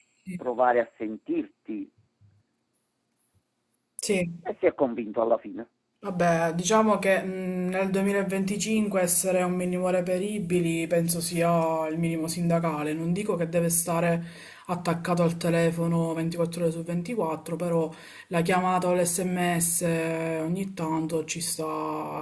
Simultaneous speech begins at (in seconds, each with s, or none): none